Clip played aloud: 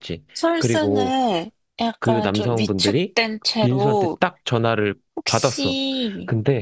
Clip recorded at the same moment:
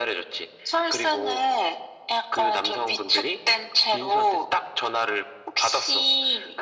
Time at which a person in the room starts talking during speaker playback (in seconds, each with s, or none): none